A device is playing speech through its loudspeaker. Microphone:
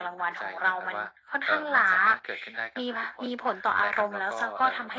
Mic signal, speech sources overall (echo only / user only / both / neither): echo only